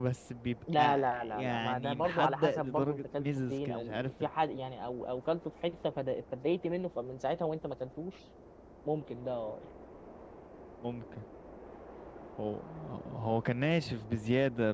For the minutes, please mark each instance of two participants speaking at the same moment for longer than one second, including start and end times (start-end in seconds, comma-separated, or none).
0.8-4.1